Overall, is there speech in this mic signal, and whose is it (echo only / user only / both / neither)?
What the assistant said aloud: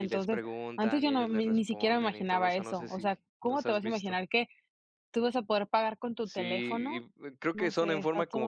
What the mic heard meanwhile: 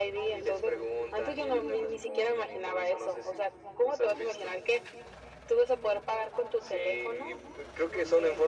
echo only